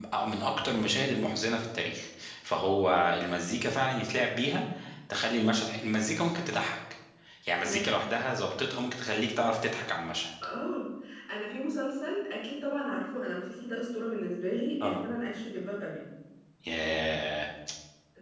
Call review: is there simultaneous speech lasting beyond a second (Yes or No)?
No